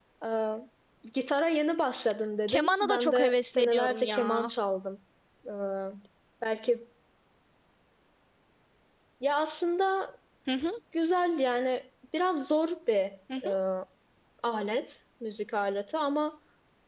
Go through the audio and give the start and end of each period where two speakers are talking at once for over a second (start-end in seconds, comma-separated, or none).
2.5-4.5